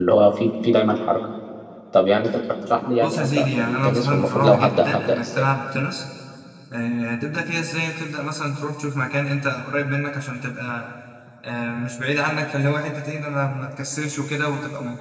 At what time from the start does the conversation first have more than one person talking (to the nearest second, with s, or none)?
3 s